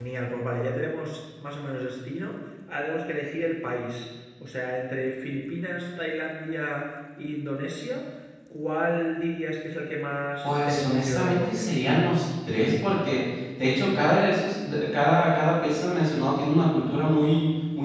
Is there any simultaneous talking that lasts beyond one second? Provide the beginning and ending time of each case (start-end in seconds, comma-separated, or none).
10.4-11.7